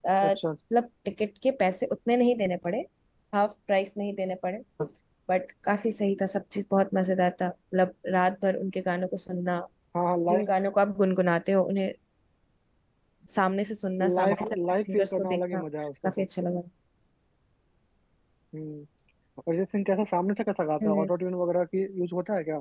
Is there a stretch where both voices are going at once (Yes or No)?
Yes